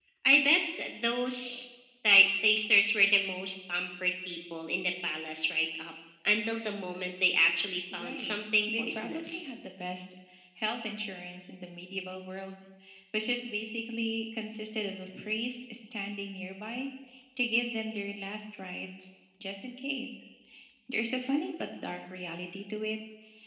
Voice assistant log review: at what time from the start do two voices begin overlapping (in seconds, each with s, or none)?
7.9 s